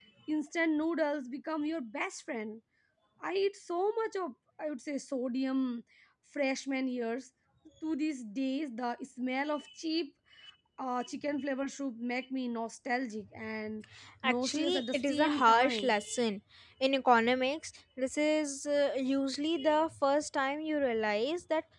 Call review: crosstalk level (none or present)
present